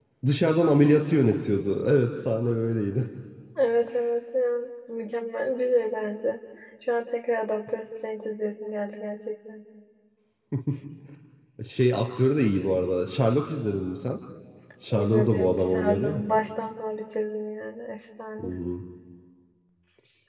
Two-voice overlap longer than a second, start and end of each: 14.9-16.2

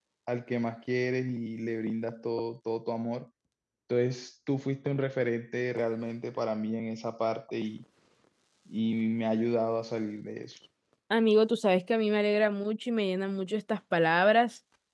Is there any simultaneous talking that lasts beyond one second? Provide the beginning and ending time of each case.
none

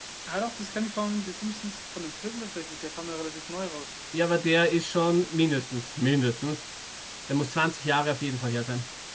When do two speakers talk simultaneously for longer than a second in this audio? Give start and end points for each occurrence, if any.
none

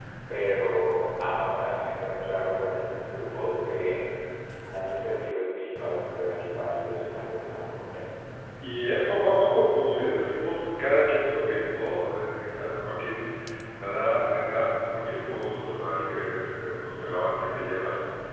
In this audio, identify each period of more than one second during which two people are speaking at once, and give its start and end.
none

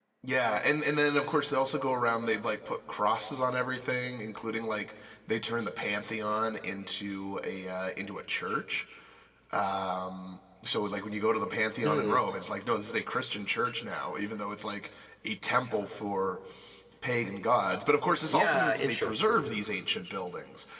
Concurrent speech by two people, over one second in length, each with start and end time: 18.3-19.5

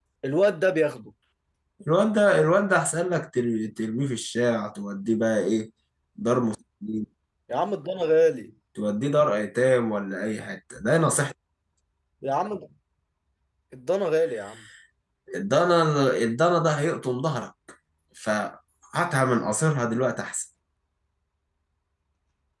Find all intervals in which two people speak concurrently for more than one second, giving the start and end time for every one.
none

